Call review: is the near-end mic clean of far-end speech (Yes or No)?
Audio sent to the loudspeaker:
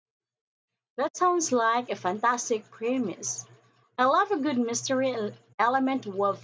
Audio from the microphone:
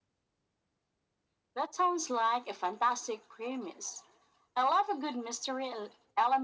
No